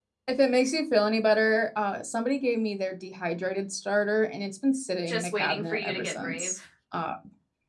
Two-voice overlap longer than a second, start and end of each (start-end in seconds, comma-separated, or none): 5.1-6.6